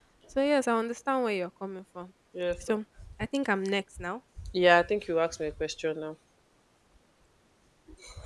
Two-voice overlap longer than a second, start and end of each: none

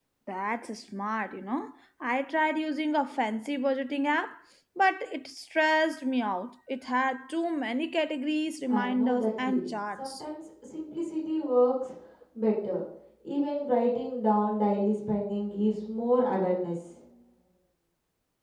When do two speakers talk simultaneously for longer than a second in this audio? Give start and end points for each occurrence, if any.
8.7-10.2

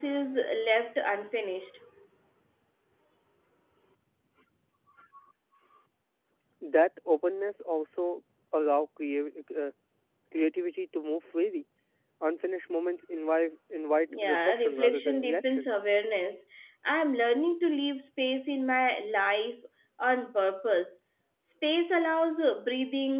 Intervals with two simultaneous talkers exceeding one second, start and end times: 14.1-15.7

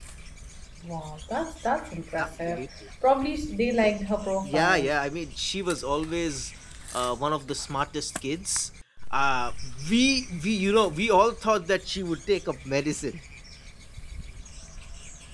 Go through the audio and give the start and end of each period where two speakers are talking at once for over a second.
none

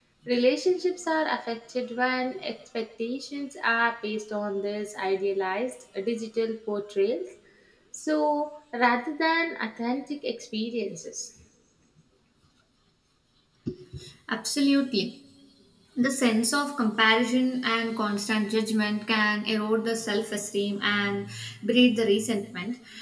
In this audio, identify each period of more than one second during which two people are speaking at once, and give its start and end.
none

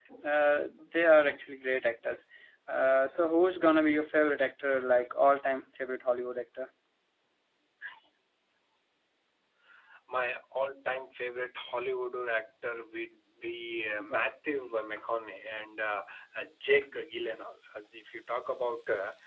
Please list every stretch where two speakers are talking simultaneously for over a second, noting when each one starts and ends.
none

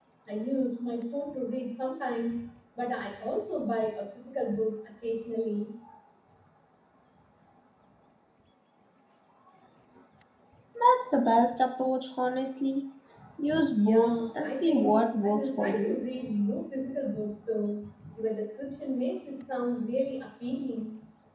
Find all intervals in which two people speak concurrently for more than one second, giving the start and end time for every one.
13.7-15.9

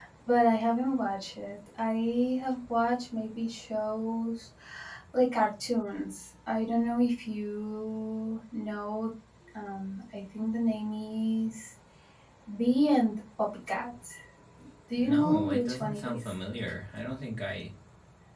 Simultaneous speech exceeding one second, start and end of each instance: 15.0-16.3

